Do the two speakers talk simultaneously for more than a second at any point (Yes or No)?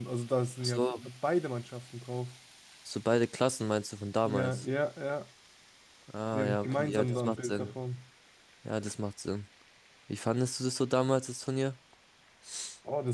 Yes